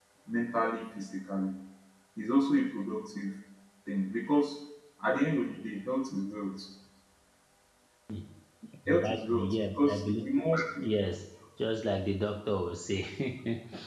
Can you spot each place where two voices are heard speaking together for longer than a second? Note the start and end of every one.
8.9-10.3

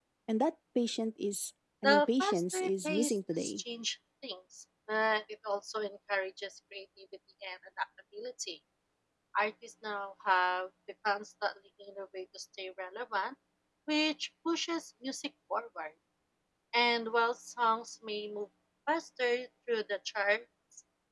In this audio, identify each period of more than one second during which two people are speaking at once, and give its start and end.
1.8-3.6

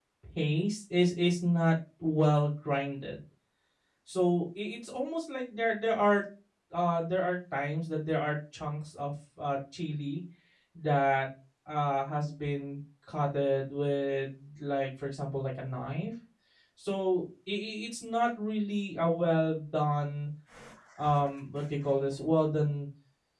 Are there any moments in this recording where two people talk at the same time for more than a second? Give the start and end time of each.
none

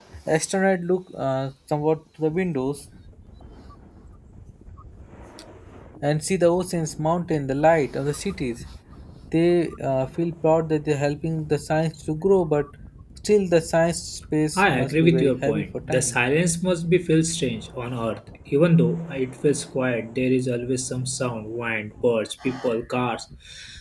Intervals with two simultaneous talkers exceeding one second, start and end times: 14.6-16.1

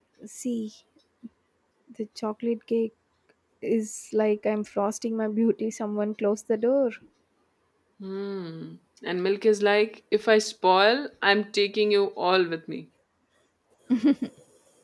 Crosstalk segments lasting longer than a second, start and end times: none

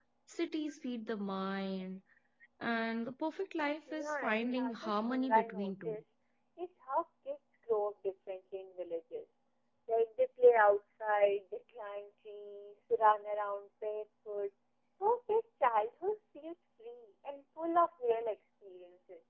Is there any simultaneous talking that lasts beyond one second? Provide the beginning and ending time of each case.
3.9-6.0

